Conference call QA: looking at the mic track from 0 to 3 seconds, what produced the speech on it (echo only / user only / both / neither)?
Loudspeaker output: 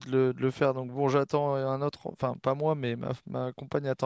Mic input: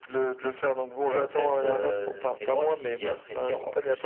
both